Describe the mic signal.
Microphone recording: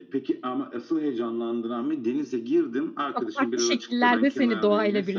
both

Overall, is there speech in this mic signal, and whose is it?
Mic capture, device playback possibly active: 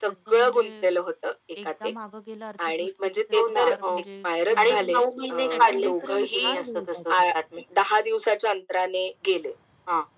both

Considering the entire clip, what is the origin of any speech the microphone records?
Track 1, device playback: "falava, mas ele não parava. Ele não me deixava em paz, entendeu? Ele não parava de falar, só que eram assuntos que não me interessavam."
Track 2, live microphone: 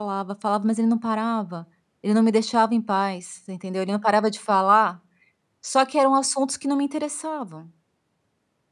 echo only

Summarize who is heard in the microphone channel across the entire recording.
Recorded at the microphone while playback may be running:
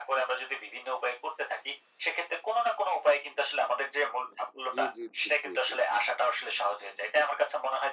both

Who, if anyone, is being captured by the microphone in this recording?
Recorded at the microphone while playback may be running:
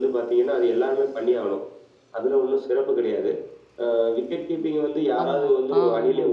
both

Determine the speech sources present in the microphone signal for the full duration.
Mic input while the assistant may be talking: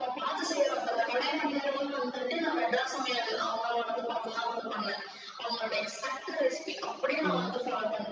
both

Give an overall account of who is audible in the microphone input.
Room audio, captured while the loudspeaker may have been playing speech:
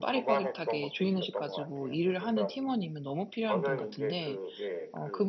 both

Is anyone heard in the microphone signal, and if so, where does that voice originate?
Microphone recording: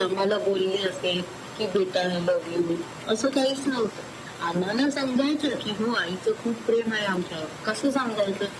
echo only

